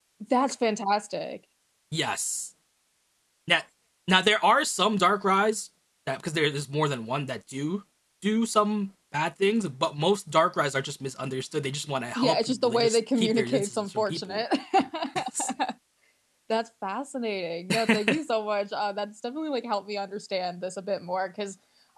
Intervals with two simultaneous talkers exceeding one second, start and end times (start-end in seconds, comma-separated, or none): 12.2-14.4